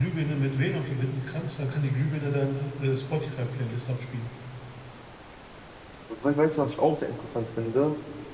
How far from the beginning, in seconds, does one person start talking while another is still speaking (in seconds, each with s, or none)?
none